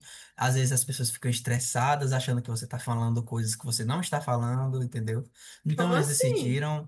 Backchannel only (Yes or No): Yes